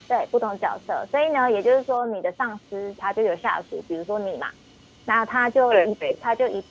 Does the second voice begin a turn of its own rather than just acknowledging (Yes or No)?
No